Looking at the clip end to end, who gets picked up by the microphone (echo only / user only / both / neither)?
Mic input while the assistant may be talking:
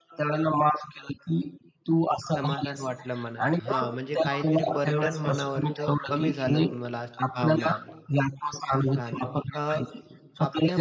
both